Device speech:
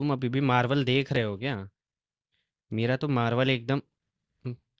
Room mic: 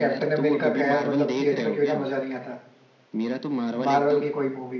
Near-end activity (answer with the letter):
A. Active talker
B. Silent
A